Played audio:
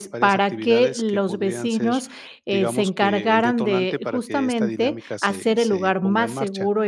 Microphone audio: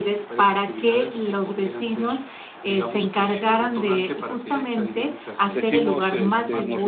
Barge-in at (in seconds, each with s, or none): 5.5 s